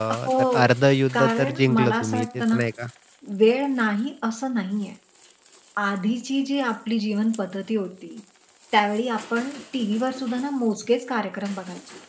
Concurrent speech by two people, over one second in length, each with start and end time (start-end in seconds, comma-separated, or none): 1.1-2.6